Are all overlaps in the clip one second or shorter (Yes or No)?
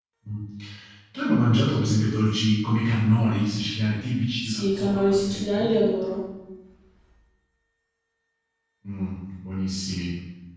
No